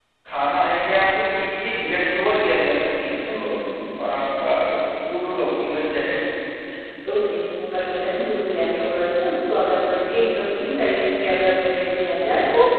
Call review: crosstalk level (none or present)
none